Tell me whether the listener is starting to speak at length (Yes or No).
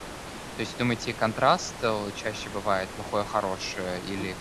Yes